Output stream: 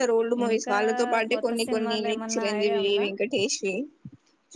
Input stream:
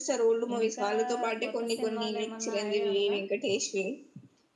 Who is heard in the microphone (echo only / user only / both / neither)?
echo only